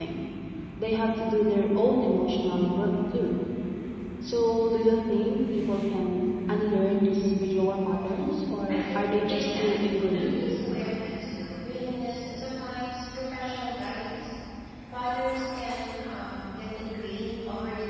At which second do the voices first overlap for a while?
8.7 s

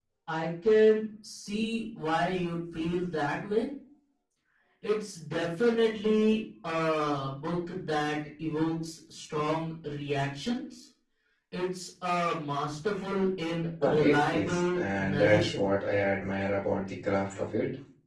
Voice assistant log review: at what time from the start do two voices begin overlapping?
13.8 s

